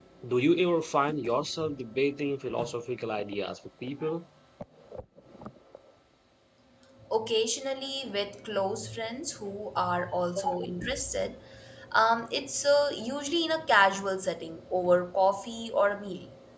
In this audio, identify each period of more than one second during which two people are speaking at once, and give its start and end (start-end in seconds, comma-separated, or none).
none